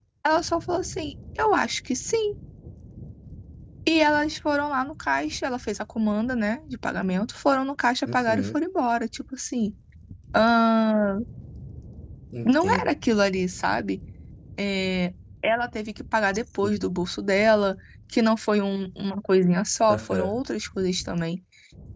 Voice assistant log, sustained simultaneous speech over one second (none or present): none